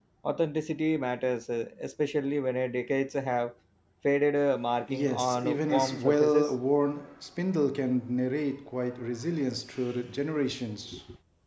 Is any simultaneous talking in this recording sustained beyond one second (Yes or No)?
Yes